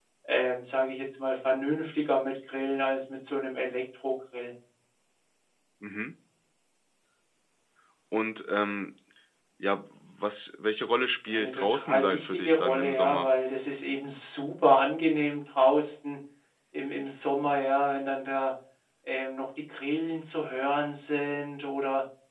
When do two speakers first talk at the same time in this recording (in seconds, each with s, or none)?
11.3 s